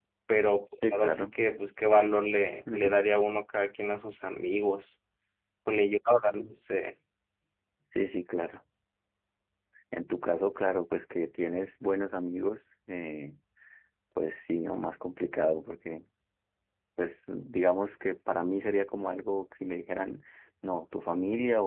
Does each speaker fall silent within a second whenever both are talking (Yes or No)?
Yes